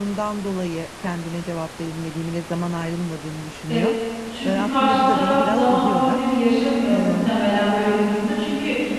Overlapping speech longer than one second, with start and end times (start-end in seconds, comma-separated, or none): 4.4-6.2